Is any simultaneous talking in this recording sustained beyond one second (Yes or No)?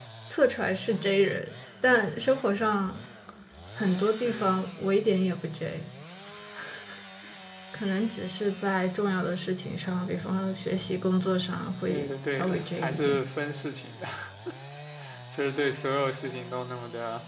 Yes